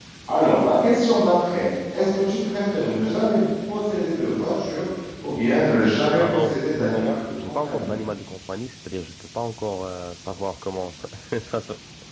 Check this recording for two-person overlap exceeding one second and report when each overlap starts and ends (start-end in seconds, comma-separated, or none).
6.2-7.9